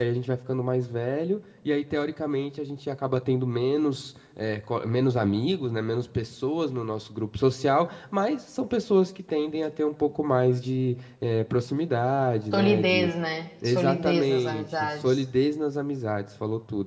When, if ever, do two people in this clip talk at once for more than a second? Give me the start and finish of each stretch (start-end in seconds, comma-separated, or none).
13.7-15.2